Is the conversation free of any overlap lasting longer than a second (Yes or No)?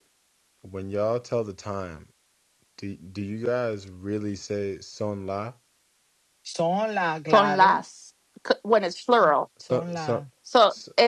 Yes